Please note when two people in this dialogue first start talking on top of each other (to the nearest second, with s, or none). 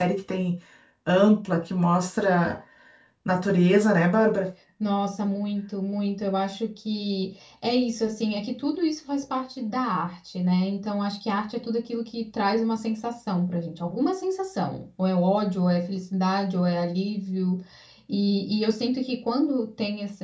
none